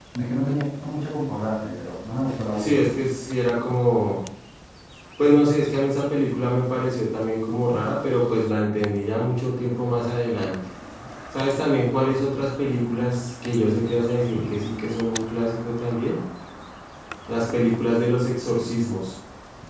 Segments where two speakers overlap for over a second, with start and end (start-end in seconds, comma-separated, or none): none